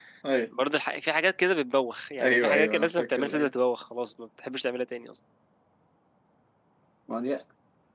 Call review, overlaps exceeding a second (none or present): present